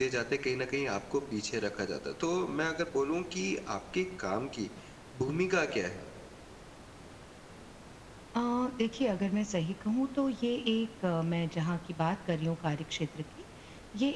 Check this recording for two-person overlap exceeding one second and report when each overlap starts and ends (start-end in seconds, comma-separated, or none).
none